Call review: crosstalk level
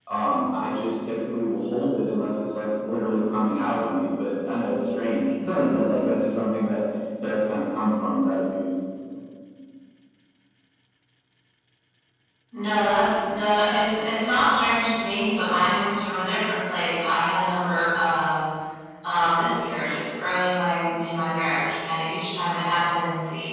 none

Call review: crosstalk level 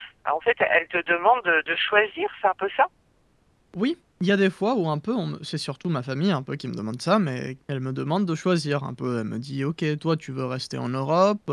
none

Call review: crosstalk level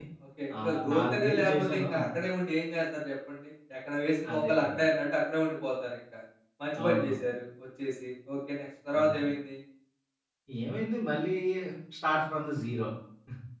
present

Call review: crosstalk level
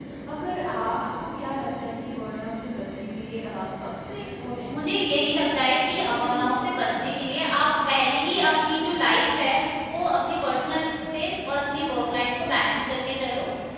present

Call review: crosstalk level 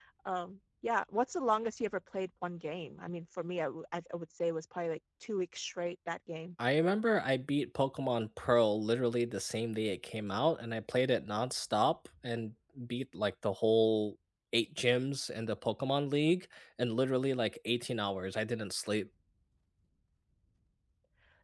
none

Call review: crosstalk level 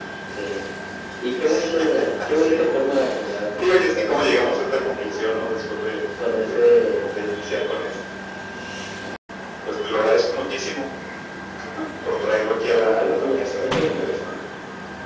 present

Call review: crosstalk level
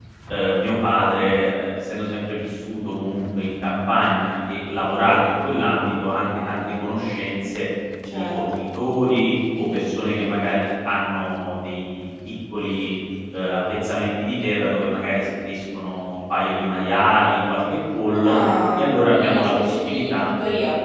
present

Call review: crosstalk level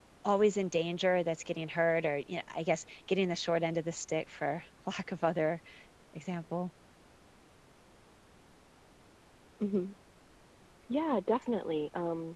none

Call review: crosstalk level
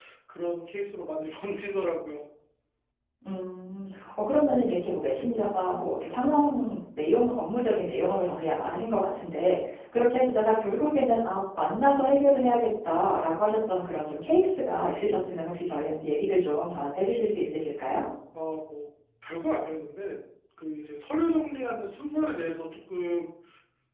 none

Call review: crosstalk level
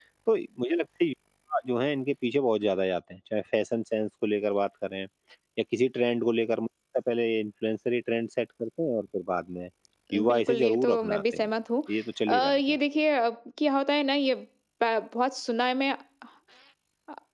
present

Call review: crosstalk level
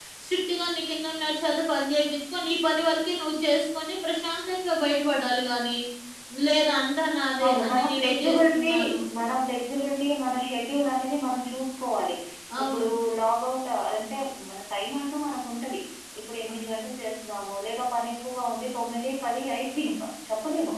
present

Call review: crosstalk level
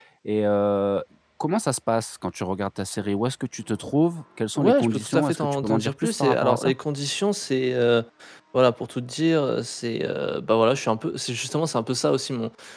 present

